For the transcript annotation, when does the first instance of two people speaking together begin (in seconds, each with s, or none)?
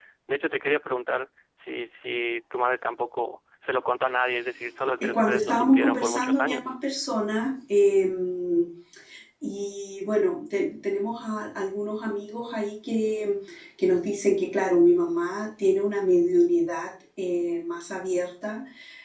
5.0 s